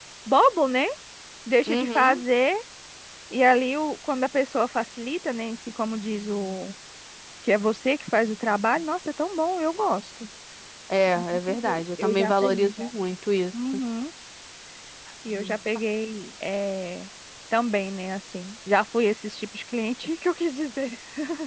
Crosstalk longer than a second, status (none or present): present